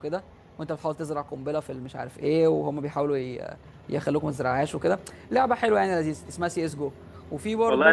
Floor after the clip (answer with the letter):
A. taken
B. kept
A